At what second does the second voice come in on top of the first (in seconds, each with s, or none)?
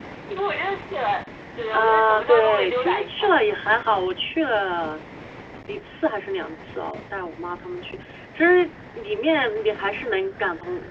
1.7 s